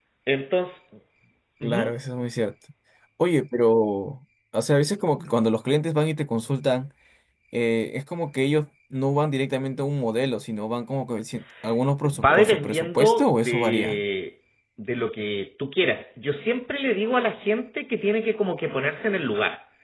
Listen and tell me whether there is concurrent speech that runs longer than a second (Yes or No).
Yes